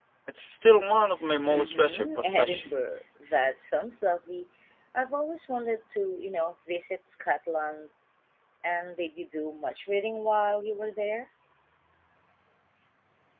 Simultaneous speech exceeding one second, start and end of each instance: 1.5-2.9

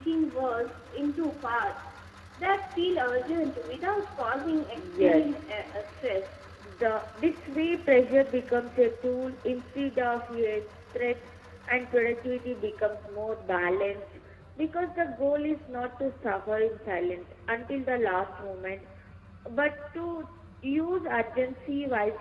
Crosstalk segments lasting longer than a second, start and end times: 4.8-6.1

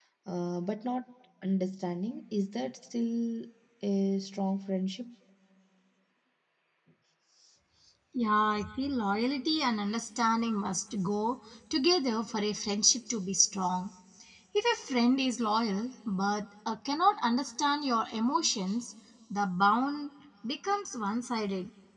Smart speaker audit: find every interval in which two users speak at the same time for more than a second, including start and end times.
none

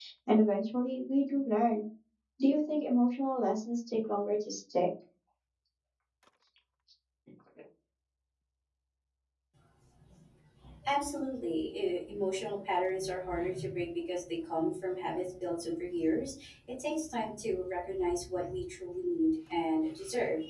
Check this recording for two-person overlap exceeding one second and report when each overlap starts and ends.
none

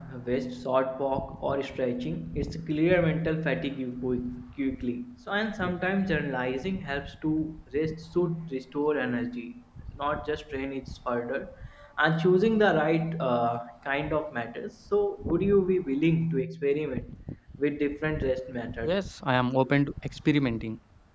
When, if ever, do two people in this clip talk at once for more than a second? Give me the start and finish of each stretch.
none

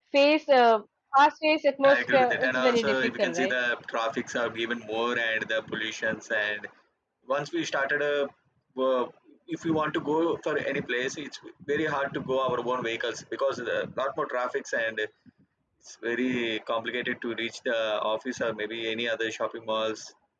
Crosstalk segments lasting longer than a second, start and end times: 1.8-3.5

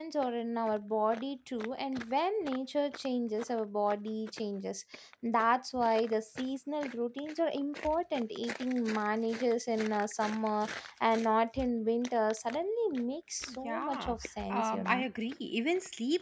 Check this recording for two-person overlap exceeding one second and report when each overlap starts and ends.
13.6-15.1

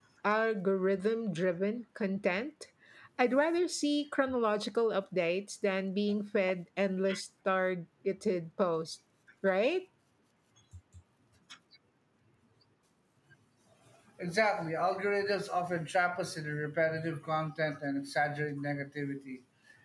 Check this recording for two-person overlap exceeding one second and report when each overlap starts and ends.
none

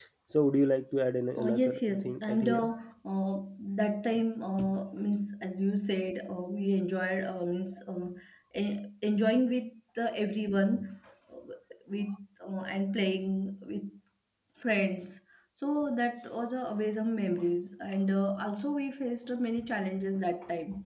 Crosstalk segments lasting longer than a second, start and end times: 1.4-2.8

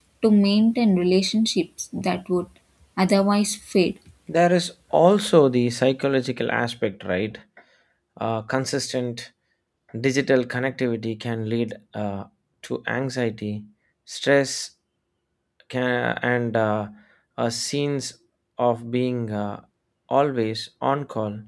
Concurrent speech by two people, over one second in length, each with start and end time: none

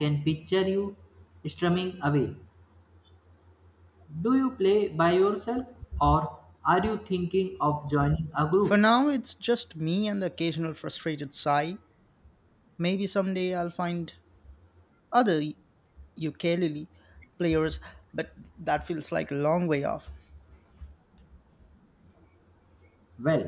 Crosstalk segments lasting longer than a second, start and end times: none

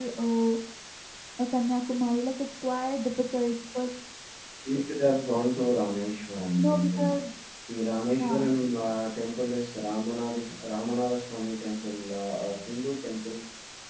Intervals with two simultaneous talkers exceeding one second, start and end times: none

